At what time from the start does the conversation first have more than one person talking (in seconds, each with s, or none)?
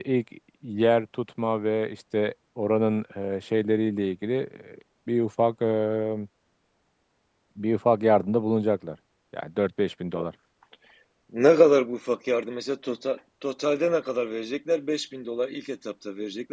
none